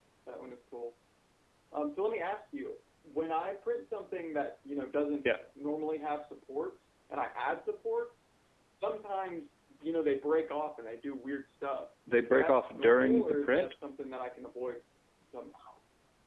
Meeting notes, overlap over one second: present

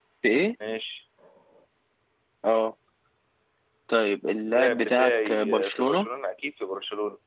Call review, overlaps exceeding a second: present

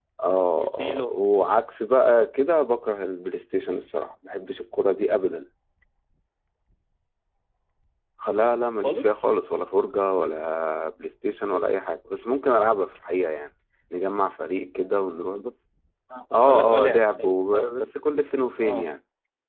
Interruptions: present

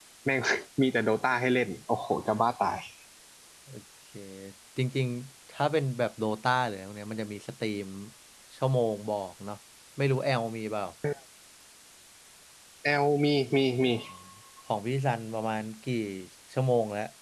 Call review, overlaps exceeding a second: none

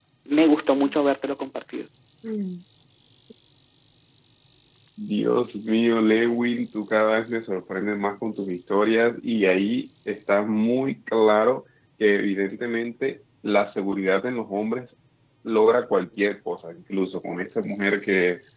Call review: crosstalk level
none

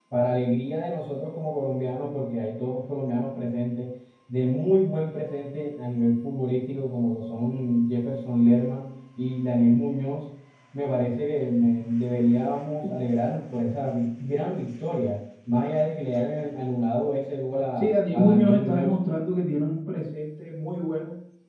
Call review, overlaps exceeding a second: present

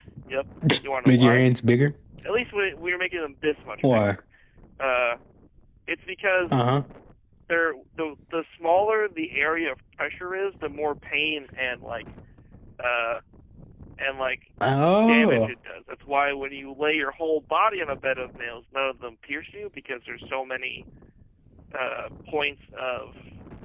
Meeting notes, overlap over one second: none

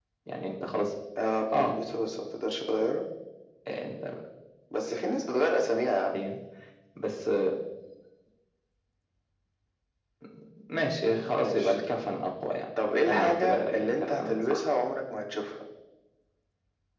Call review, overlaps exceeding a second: present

